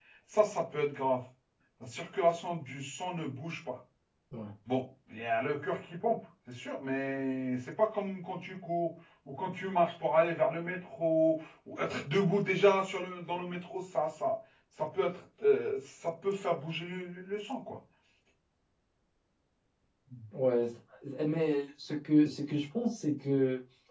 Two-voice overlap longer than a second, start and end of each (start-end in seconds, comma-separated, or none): none